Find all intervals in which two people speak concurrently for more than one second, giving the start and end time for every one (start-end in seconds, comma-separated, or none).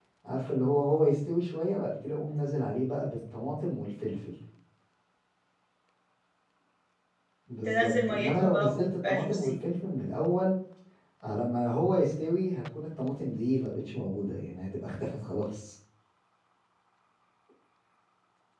7.7-9.5